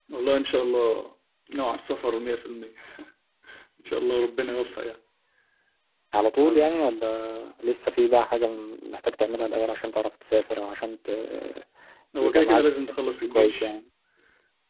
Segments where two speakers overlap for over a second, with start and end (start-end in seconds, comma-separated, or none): 12.2-13.7